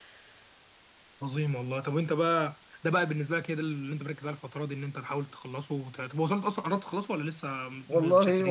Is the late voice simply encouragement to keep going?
No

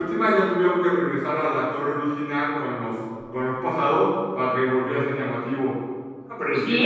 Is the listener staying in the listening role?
No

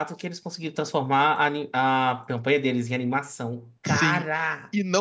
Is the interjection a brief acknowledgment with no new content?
No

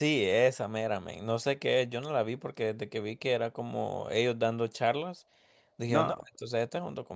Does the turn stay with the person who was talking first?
Yes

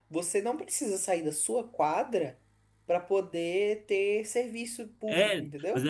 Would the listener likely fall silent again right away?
No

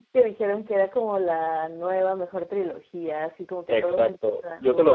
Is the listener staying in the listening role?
No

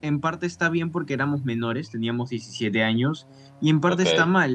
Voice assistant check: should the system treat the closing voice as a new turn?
No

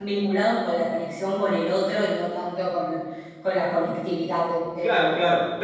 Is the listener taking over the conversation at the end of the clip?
Yes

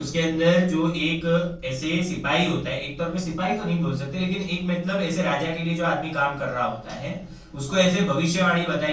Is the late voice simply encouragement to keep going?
Yes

